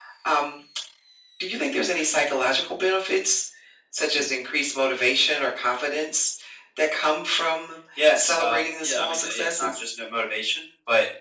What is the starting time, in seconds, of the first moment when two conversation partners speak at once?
8.0 s

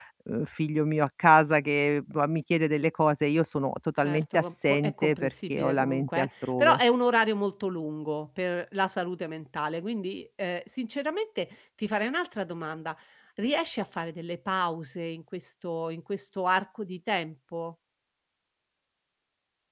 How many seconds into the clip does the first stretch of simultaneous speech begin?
4.0 s

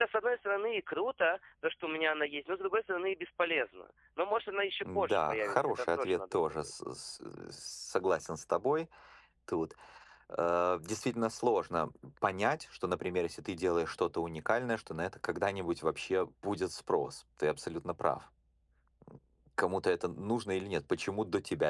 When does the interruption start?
4.8 s

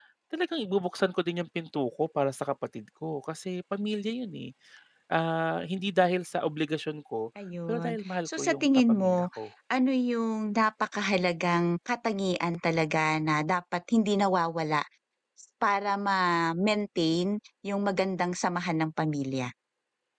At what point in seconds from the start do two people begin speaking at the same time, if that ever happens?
7.7 s

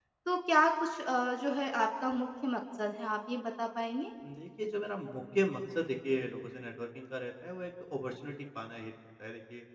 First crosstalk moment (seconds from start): none

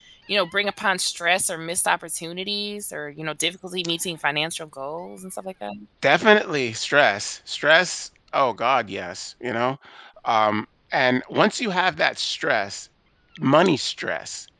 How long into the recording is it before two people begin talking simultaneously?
none

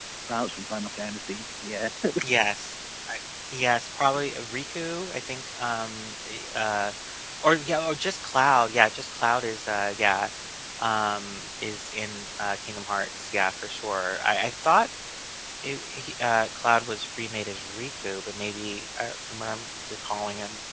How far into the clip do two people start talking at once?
none

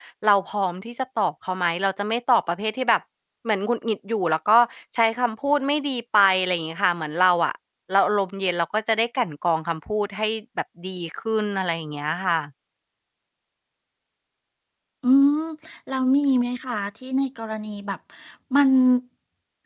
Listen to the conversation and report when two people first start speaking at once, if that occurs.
none

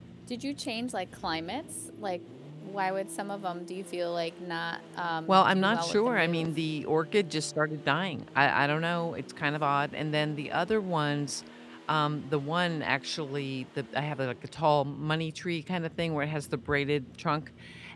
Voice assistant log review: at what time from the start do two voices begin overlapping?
5.3 s

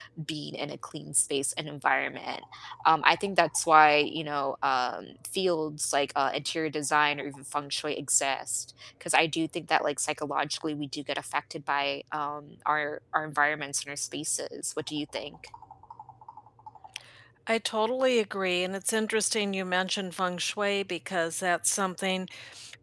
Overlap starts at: none

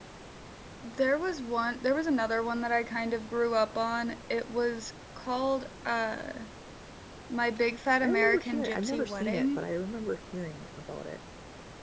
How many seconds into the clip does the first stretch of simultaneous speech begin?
8.0 s

